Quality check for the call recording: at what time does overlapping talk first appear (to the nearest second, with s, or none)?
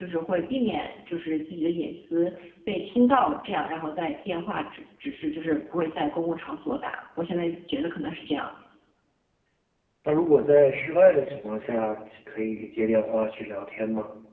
none